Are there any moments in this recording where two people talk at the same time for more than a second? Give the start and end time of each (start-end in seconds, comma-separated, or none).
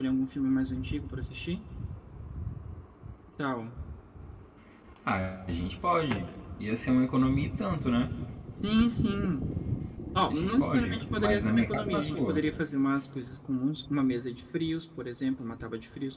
10.3-12.4